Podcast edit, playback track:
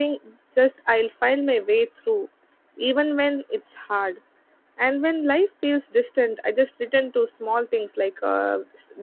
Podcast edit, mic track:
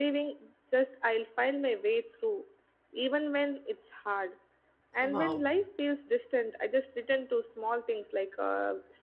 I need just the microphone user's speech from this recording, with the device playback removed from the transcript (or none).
Wow.